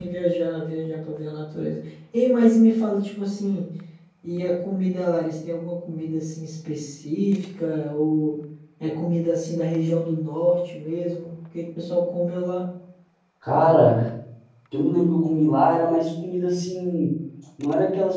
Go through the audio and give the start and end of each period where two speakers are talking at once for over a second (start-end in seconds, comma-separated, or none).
none